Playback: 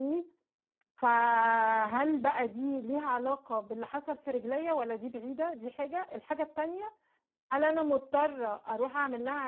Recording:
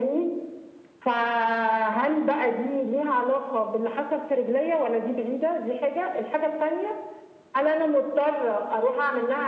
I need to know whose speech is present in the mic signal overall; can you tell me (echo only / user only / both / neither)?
echo only